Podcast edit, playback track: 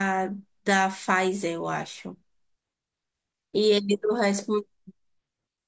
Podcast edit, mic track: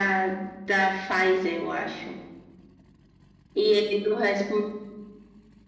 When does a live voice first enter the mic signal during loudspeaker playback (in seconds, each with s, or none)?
none